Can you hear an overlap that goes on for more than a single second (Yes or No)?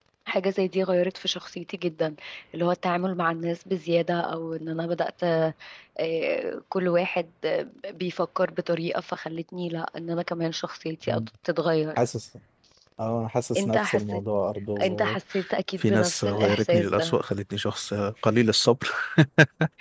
Yes